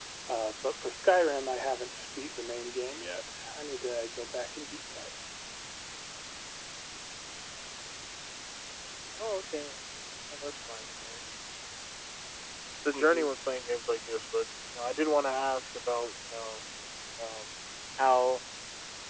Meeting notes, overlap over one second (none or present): none